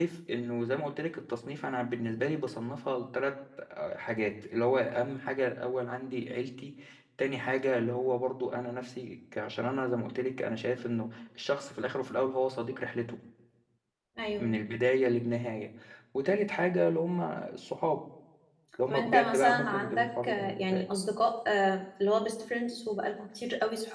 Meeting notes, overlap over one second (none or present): present